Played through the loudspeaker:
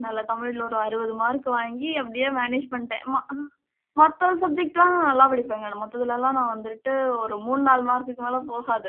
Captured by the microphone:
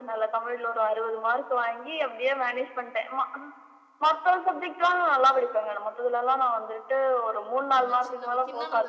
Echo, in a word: present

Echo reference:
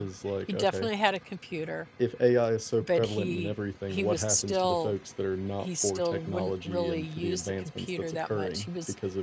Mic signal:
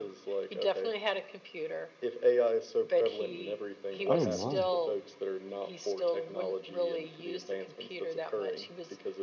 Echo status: present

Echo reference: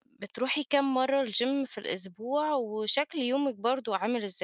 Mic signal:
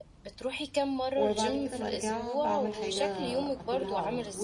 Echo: present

